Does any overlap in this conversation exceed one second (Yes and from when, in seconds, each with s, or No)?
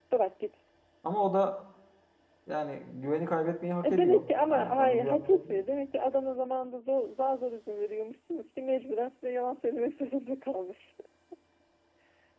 Yes, from 3.8 s